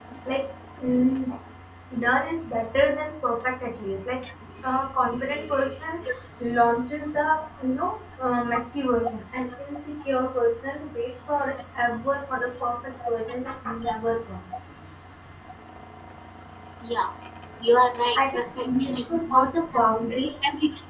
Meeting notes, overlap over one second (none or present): present